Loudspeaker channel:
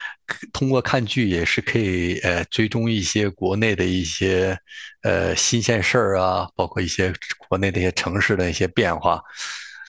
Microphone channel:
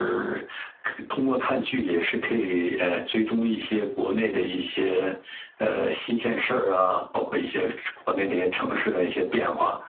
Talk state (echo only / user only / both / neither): echo only